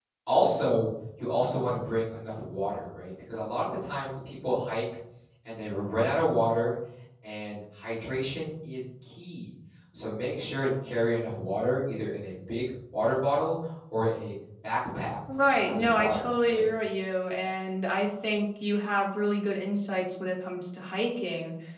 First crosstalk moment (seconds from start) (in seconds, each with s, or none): 15.3 s